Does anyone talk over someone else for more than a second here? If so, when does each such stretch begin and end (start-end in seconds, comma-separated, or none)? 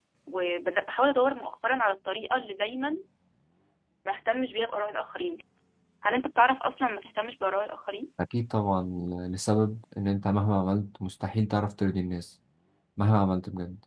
none